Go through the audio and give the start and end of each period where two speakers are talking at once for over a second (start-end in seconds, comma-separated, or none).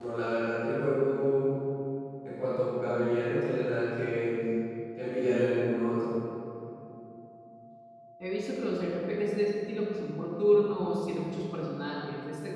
none